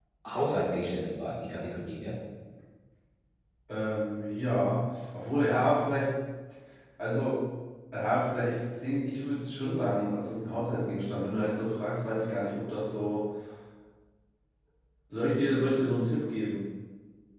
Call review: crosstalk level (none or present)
none